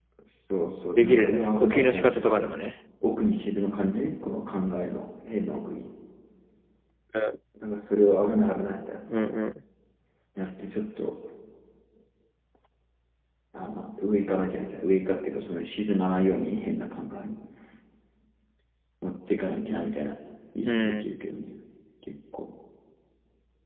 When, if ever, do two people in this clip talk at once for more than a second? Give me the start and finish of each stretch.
1.0-2.6

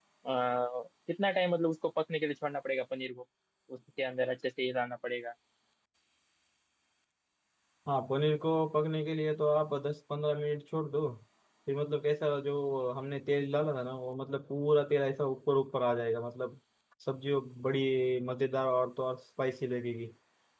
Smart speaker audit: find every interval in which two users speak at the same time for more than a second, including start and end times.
none

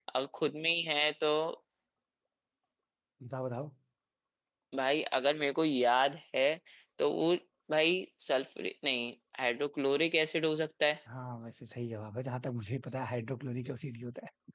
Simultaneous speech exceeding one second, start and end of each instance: none

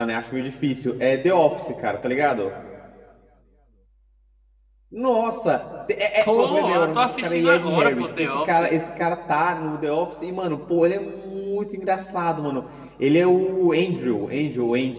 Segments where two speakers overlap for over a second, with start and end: 6.2-8.7

